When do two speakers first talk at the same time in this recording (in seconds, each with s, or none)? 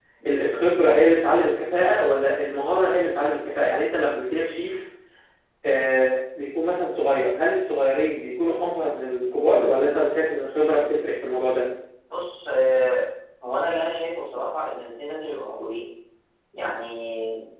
none